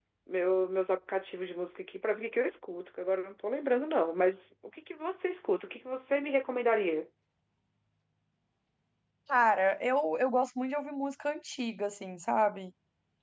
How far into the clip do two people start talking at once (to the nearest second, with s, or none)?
none